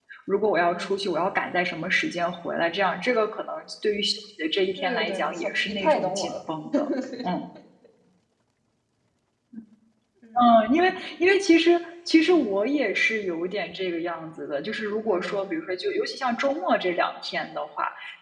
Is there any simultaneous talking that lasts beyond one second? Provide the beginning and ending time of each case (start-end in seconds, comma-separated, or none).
4.8-6.3